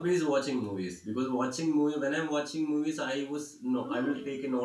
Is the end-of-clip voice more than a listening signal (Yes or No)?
No